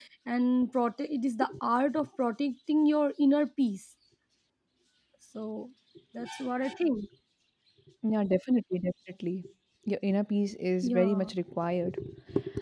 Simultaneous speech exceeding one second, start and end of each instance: none

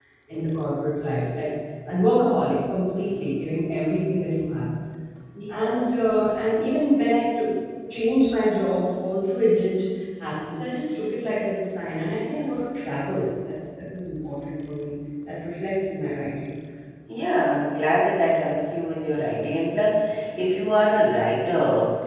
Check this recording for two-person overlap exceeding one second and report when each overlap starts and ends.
none

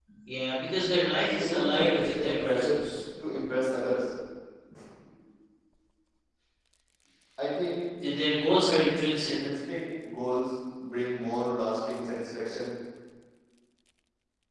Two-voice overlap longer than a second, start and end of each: 1.4-2.8

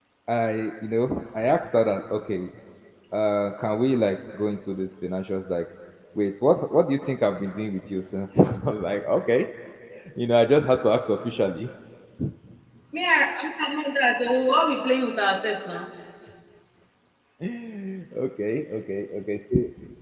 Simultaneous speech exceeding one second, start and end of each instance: none

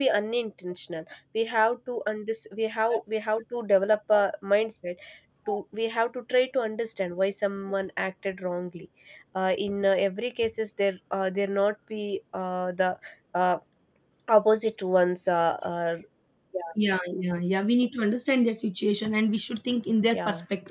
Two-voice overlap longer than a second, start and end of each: none

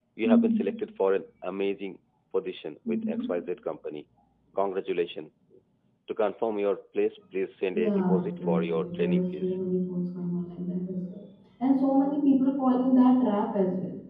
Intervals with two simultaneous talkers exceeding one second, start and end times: 7.7-9.5

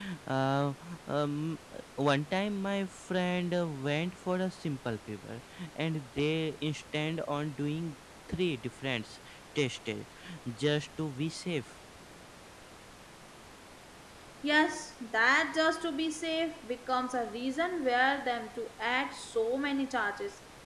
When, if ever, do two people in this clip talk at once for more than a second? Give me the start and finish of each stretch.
none

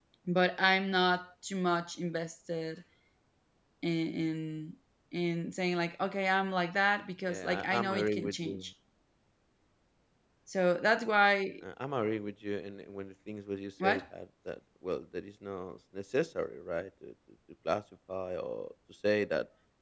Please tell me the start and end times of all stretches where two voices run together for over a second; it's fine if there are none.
7.3-8.7

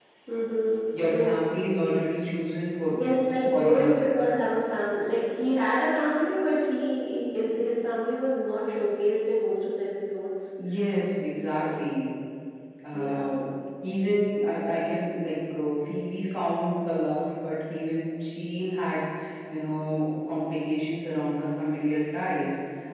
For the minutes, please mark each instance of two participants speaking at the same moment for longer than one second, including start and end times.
2.9-4.1

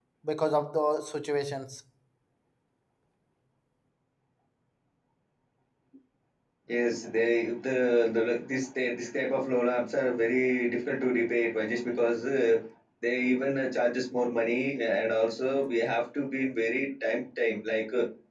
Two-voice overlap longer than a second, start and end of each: none

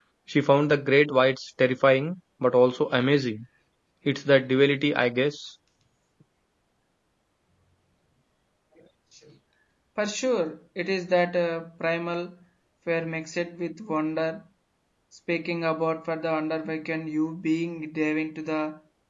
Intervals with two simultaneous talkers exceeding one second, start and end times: none

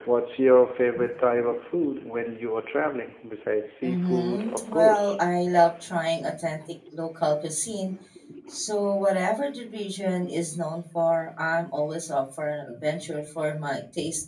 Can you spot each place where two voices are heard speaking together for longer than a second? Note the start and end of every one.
3.8-5.2

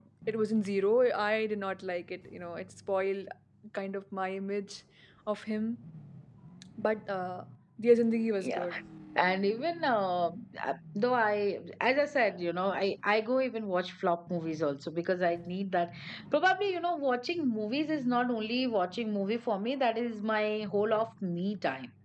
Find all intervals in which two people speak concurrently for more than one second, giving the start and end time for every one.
none

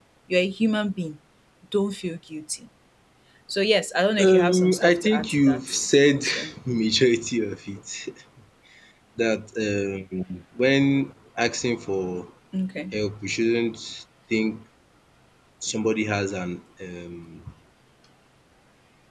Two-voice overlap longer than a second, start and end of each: 4.2-5.6

